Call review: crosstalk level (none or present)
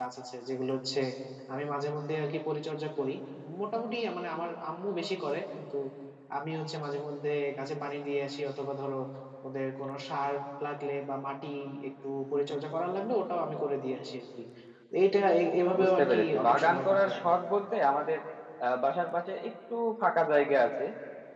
present